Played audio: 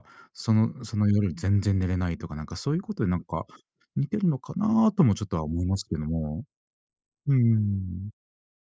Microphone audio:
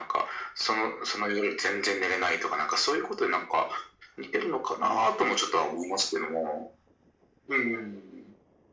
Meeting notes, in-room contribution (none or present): none